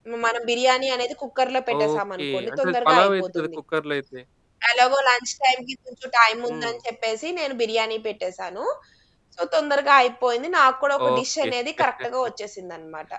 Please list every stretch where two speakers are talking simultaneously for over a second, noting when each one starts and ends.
1.7-3.5

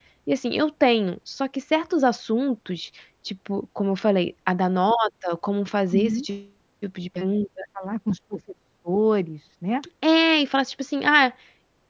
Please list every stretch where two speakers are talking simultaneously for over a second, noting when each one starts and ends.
none

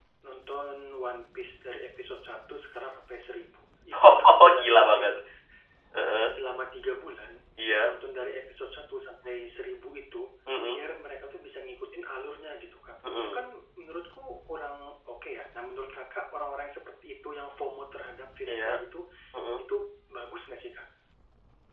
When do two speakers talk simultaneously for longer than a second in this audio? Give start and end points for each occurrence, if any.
3.9-5.1

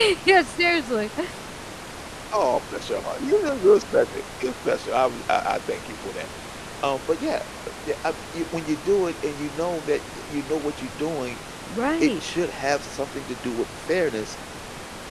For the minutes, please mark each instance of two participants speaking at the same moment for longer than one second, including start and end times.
none

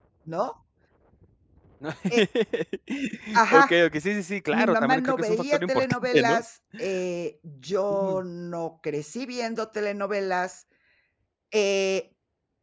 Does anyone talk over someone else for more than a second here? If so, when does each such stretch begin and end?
4.5-6.4

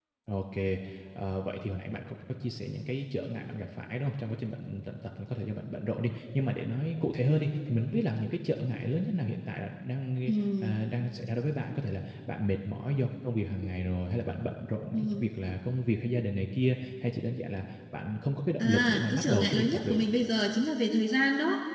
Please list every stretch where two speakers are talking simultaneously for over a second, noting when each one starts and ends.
18.6-20.0

